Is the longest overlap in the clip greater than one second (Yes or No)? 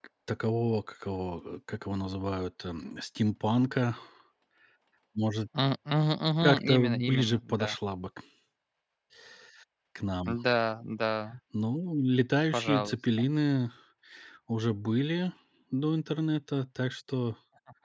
Yes